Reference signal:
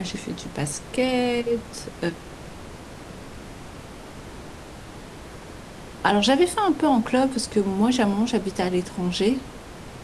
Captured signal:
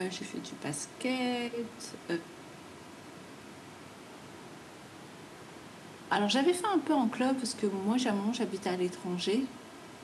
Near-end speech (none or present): none